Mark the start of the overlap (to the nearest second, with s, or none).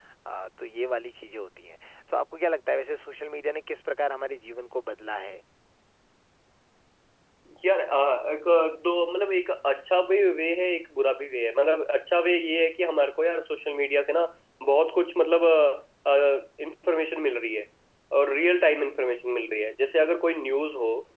none